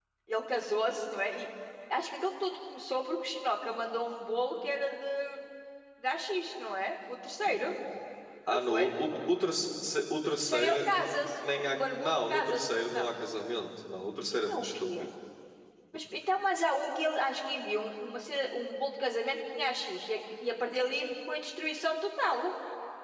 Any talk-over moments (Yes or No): Yes